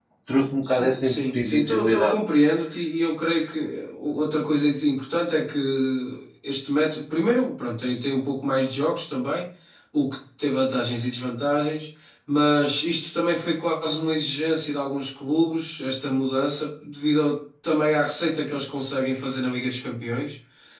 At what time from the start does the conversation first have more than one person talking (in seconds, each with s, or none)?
0.6 s